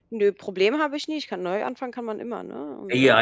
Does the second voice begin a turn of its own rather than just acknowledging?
Yes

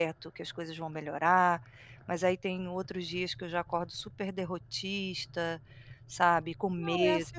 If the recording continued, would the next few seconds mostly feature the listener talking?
Yes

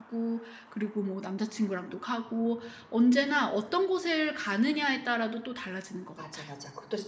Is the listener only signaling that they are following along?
No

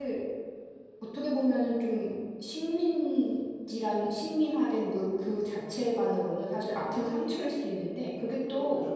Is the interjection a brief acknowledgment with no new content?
Yes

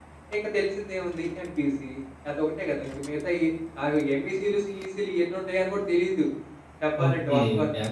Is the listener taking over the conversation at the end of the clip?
Yes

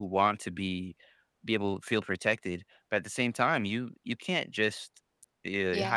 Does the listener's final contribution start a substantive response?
No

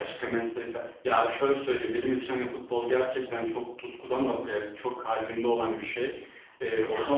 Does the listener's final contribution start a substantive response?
No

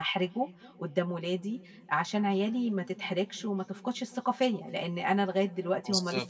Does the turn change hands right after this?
No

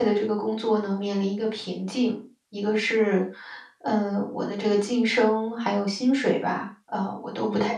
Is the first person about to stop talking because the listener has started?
No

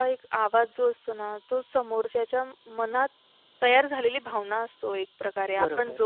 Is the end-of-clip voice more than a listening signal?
No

